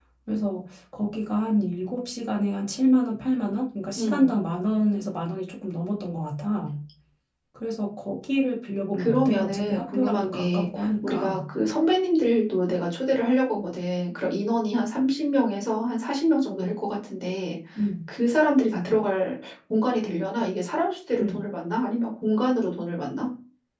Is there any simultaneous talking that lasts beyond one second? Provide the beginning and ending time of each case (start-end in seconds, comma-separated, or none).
9.0-11.4